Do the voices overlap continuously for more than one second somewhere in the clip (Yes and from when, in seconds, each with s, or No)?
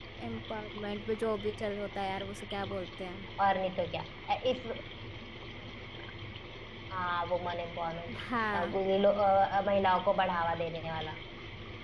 No